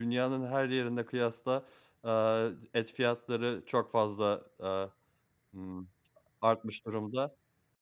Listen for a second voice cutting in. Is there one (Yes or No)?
No